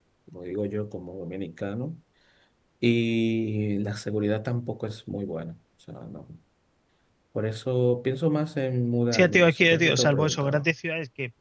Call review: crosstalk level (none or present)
present